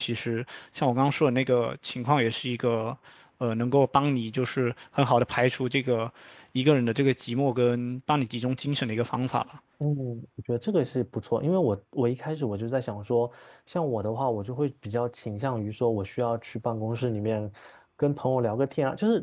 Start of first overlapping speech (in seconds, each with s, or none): none